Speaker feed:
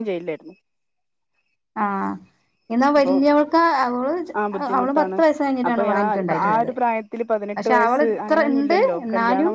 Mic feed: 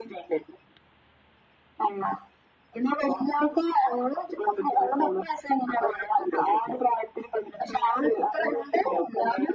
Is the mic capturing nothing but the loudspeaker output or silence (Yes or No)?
Yes